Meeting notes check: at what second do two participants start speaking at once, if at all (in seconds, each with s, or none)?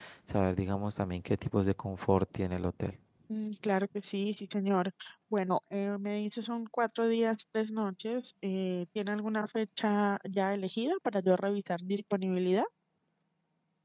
none